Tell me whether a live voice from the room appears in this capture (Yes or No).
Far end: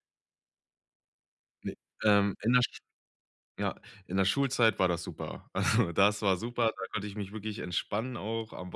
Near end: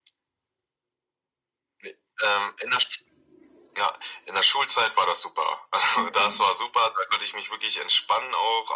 Yes